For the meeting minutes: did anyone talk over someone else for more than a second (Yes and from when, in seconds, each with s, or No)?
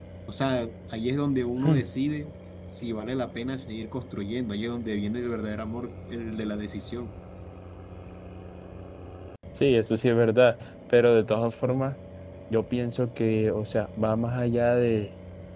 No